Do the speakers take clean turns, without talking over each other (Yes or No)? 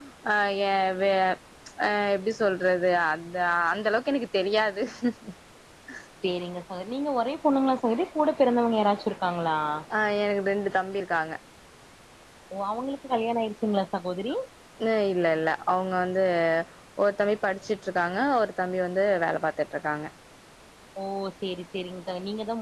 Yes